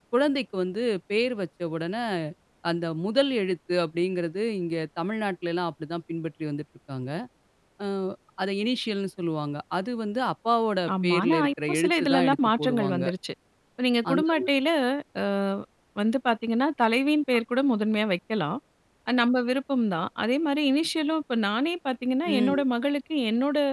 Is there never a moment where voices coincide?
No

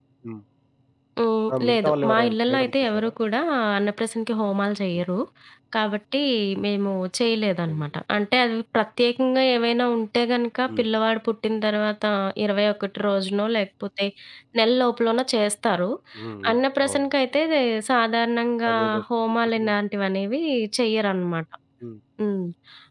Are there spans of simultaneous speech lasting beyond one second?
Yes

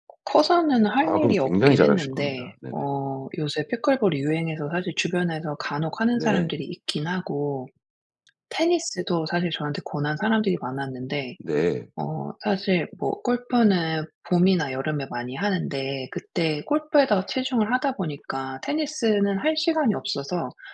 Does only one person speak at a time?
No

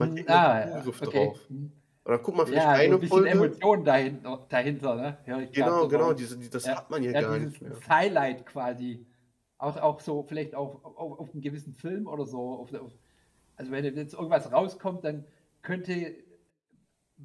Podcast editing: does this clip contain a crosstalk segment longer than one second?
Yes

